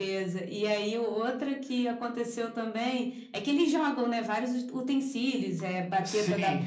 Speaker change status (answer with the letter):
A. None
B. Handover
A